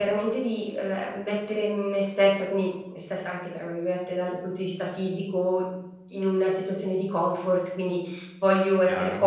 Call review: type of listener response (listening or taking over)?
listening